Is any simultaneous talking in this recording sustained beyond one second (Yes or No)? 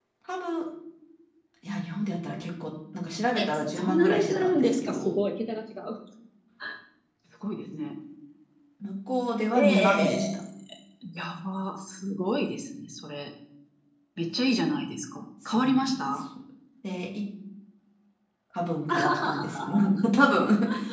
Yes